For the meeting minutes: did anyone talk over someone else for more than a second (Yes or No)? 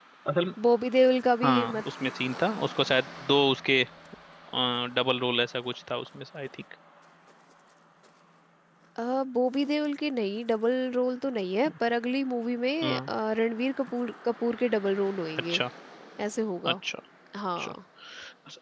No